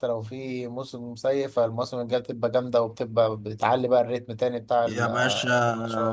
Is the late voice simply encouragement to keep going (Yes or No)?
No